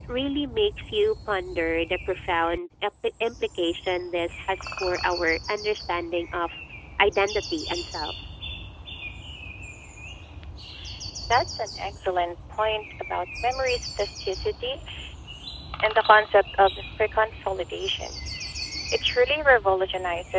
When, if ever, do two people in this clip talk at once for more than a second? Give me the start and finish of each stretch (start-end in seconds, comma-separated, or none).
none